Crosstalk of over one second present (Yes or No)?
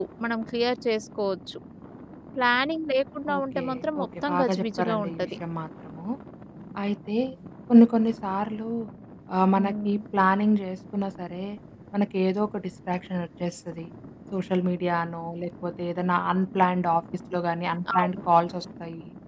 Yes